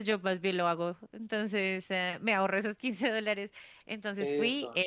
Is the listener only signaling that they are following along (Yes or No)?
Yes